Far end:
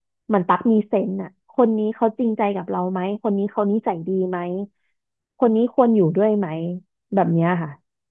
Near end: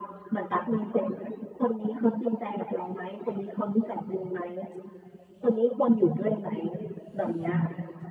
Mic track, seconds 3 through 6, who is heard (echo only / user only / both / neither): echo only